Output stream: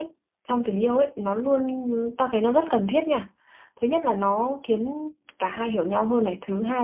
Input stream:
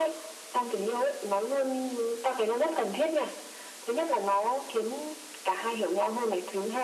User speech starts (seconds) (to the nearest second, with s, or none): none